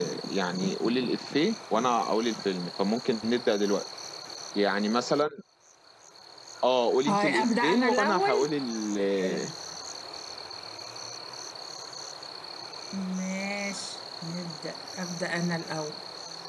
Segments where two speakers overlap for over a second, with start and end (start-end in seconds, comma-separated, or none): 7.1-8.5